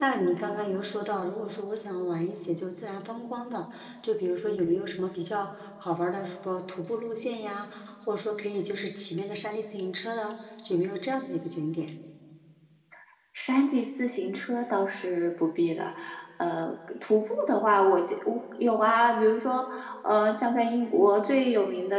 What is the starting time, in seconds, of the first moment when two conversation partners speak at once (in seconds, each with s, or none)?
none